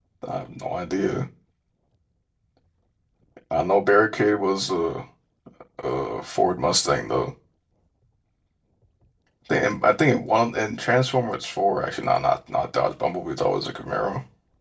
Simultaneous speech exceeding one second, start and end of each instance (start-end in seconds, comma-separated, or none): none